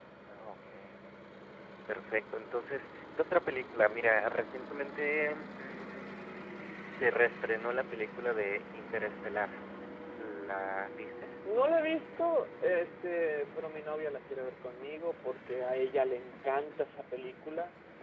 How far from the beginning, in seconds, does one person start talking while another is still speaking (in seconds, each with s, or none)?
none